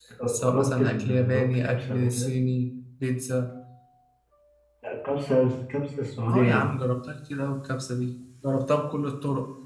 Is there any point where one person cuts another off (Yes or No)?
Yes